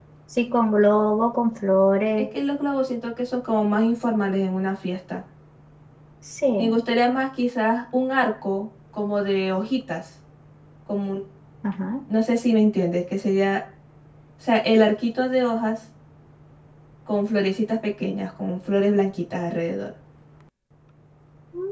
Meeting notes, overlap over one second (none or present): none